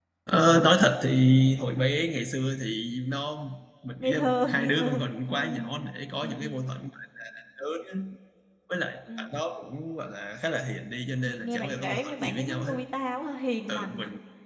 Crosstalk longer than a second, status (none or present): present